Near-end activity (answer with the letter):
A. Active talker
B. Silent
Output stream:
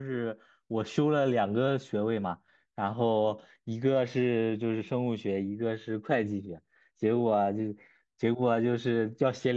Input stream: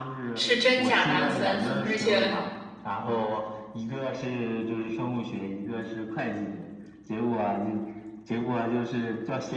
A